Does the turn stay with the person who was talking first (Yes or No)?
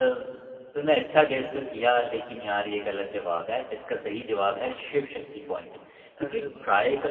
Yes